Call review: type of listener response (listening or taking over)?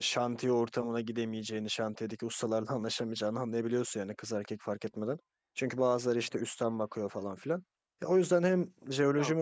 listening